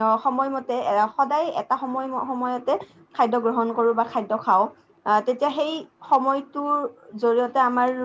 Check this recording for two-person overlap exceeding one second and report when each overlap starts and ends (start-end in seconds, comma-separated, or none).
none